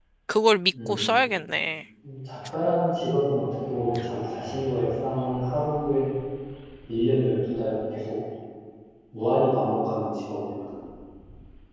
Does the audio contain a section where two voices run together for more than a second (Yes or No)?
No